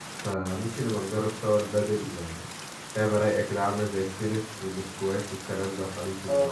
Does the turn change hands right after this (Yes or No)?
Yes